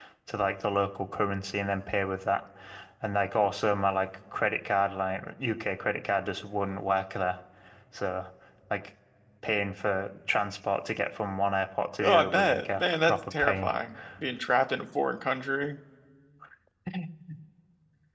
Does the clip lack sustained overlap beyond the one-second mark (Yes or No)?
No